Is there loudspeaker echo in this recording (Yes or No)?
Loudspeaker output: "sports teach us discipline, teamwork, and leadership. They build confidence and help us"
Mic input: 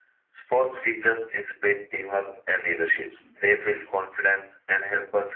Yes